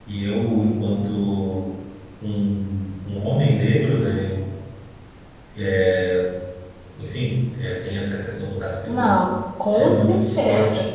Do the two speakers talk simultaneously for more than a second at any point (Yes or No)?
Yes